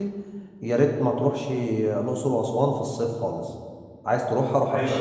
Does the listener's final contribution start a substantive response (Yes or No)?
Yes